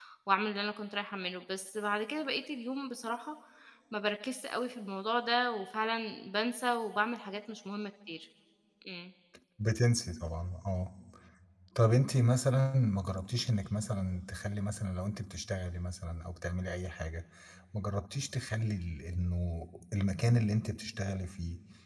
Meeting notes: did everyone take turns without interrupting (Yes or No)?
Yes